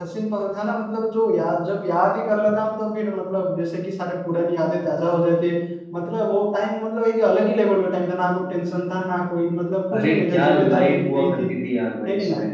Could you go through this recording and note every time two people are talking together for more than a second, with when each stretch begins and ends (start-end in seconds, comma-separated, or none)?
9.9-11.5